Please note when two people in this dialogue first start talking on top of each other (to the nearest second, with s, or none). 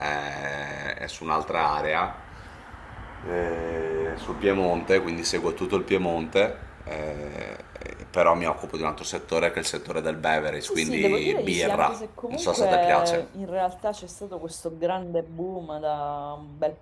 11 s